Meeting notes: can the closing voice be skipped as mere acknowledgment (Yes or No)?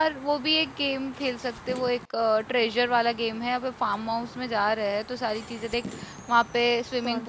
Yes